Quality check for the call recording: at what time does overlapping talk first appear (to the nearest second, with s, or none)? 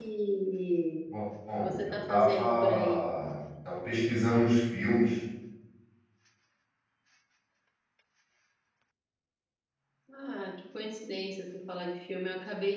2 s